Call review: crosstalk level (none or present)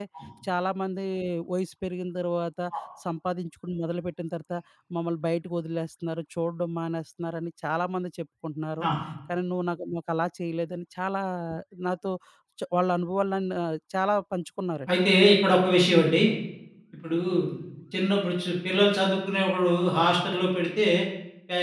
none